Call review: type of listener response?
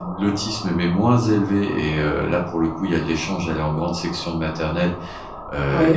listening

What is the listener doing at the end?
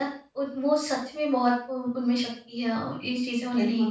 taking over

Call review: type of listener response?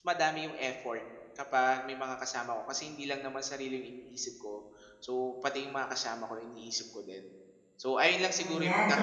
taking over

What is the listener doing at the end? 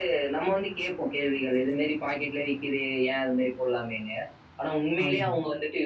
listening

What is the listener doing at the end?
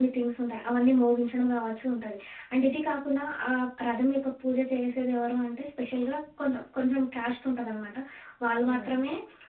listening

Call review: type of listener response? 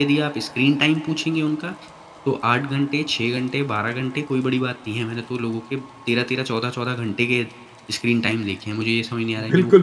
taking over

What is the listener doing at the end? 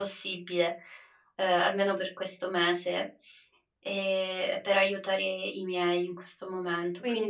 taking over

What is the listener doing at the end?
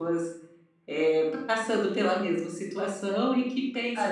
taking over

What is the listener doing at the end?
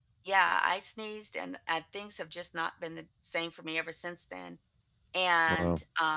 listening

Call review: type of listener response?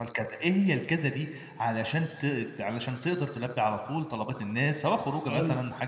listening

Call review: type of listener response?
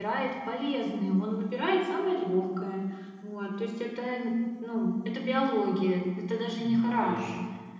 listening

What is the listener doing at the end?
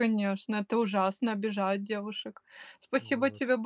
listening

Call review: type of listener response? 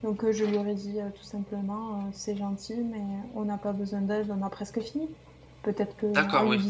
listening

